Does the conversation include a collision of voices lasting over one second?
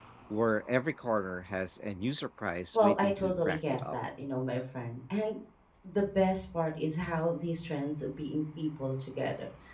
Yes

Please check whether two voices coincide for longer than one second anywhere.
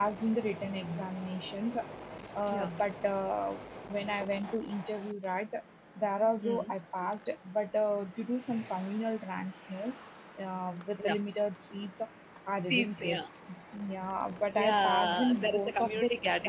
Yes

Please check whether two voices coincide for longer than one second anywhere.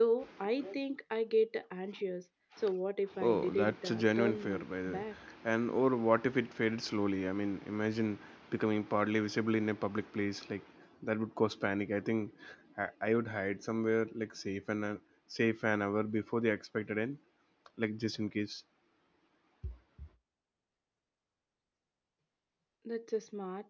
Yes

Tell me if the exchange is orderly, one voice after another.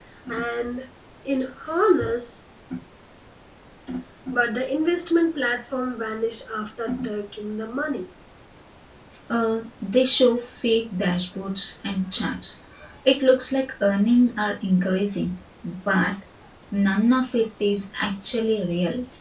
Yes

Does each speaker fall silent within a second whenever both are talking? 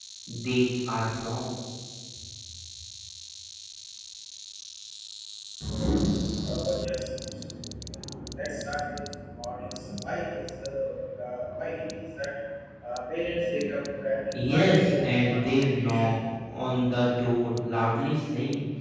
No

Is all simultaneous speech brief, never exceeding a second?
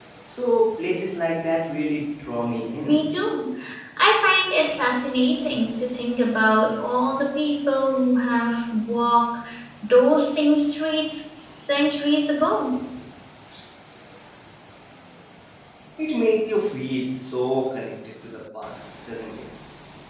Yes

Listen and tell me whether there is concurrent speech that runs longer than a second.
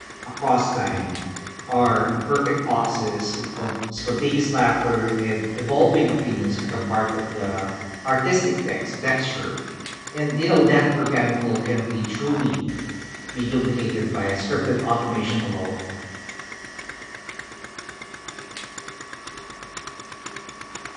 No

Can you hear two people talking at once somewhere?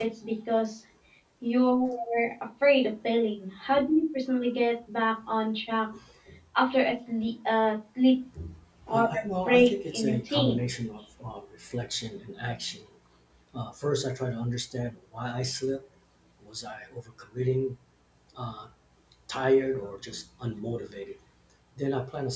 Yes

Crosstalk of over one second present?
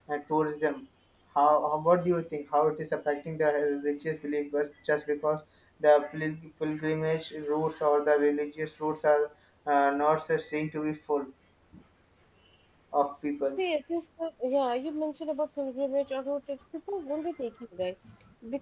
No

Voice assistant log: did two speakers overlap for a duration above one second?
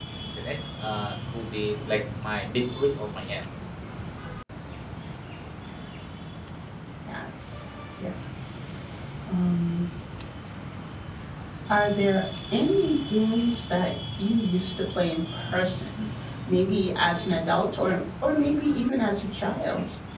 No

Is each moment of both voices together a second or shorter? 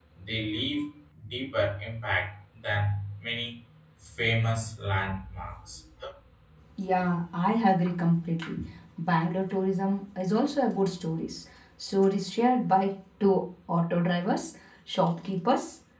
Yes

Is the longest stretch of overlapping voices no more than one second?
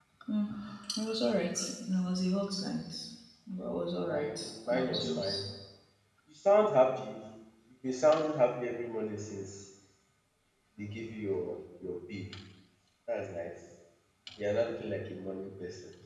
No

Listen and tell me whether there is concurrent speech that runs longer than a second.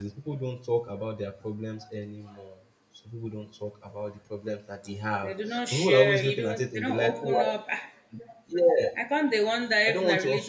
Yes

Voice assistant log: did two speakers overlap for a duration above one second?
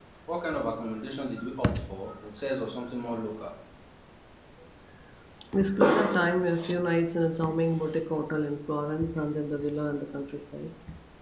No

